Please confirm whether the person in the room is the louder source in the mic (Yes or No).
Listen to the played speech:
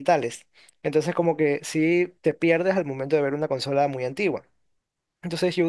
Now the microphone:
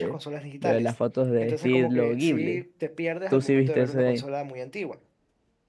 Yes